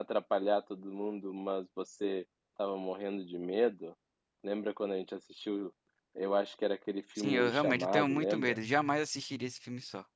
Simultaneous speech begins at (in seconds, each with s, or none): 7.2 s